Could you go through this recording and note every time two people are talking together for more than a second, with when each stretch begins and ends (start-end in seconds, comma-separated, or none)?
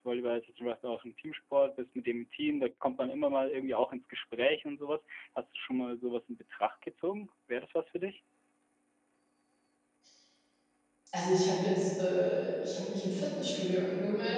none